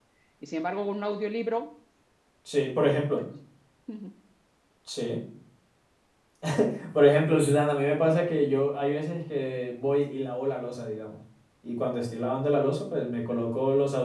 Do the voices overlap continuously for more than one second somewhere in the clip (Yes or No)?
No